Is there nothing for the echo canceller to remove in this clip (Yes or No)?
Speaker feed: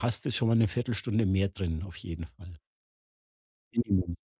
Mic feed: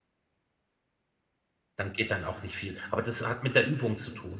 Yes